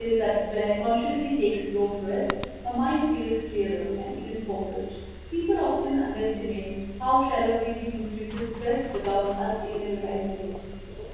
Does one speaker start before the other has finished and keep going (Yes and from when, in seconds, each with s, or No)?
No